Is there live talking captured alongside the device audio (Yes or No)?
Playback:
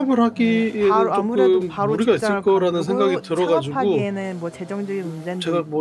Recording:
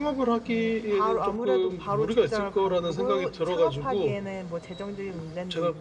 No